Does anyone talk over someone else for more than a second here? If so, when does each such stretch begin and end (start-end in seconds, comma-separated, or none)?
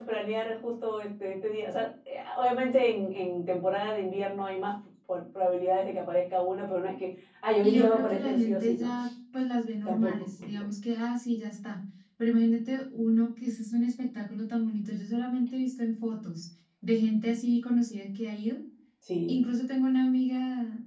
7.6-8.9